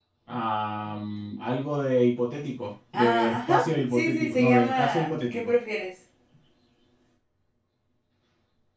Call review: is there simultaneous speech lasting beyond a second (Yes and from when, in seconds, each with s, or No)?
Yes, from 2.9 s